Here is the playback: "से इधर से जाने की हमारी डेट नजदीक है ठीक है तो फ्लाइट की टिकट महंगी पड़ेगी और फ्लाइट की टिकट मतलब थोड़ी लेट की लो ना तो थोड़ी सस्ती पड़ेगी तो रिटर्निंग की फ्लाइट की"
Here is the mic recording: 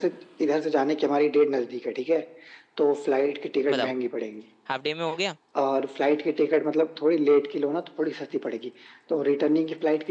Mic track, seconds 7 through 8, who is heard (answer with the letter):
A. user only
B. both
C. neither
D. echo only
D